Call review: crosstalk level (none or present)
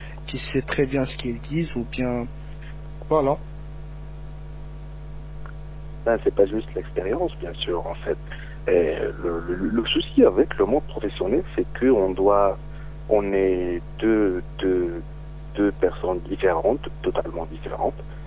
none